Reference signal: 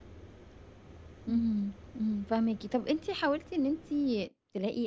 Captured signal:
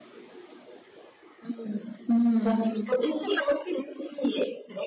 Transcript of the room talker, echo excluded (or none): إمم.